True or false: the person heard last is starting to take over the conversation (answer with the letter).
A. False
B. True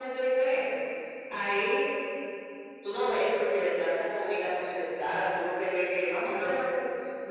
A